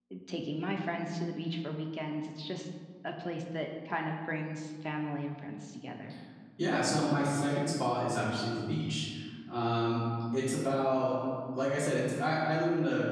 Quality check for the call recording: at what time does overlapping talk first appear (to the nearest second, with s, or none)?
none